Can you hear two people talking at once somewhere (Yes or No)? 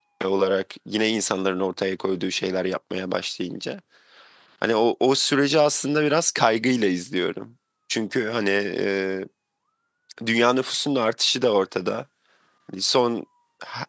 No